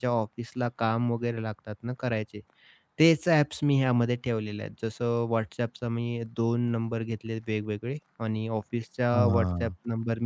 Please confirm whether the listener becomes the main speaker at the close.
No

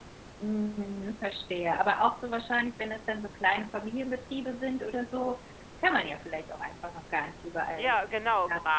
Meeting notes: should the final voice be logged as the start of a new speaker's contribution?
Yes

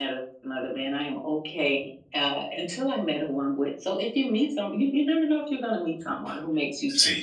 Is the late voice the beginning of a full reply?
Yes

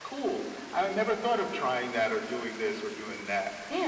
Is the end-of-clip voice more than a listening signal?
Yes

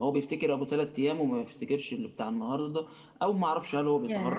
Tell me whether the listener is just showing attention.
Yes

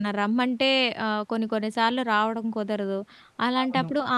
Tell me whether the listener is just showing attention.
Yes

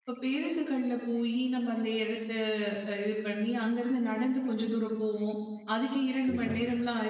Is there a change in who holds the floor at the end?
No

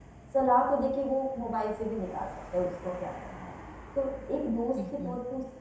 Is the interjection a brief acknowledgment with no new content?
Yes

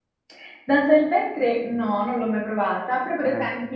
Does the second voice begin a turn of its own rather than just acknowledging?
No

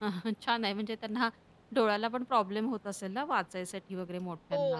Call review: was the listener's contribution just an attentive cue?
No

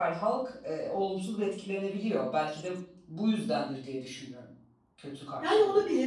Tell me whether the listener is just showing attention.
No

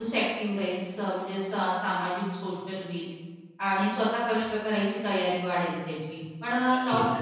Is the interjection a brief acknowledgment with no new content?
Yes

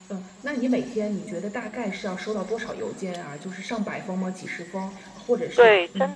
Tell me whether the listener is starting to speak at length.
Yes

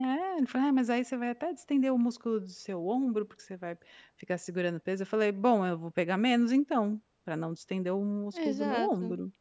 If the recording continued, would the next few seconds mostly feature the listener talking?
Yes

